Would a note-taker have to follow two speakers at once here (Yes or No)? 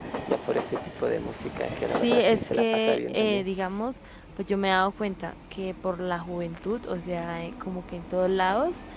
Yes